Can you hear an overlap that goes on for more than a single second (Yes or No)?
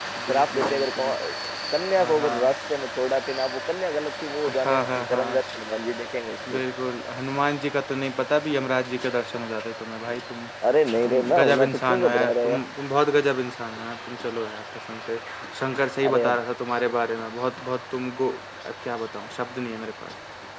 Yes